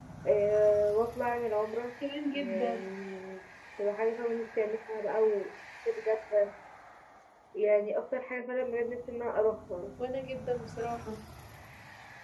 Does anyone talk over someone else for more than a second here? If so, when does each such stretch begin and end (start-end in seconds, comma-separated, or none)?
none